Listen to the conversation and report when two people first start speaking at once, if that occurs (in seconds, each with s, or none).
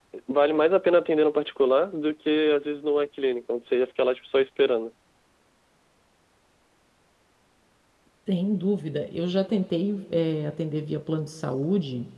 none